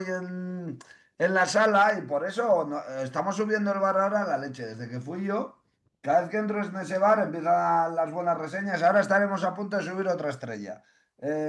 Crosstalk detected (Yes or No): No